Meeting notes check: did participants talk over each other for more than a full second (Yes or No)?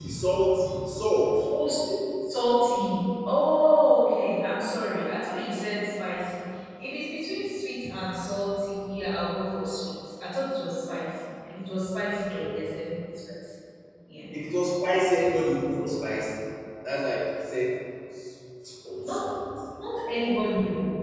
No